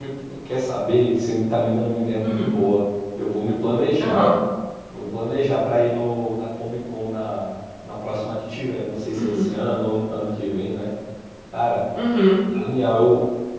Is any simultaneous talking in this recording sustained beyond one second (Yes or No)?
No